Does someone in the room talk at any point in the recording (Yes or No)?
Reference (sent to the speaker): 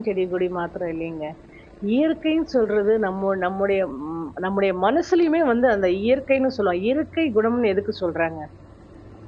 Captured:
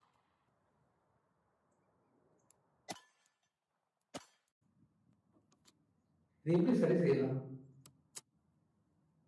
Yes